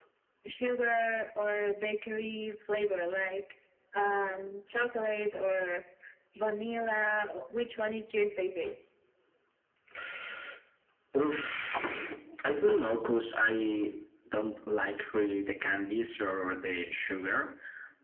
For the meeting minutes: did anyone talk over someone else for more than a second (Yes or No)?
No